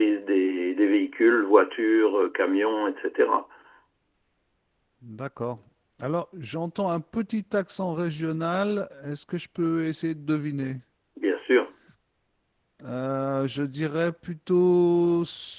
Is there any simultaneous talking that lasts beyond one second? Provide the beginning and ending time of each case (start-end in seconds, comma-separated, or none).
none